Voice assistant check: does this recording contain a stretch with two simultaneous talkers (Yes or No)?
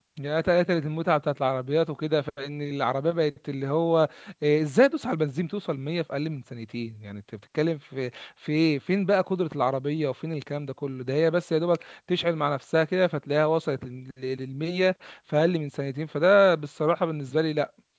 No